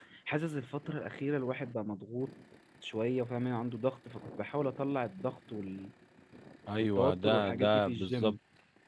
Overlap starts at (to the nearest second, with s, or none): 7 s